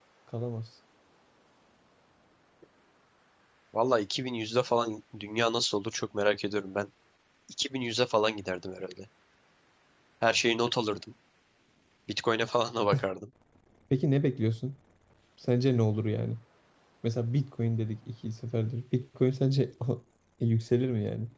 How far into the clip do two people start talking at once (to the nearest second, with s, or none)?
none